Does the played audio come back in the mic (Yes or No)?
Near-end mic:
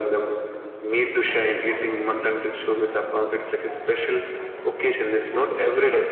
Yes